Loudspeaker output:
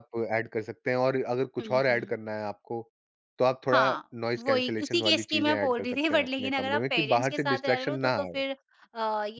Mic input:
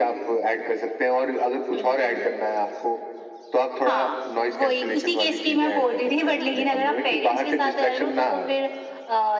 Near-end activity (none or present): none